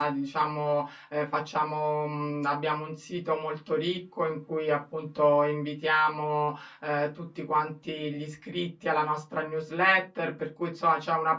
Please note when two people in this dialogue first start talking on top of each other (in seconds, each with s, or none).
none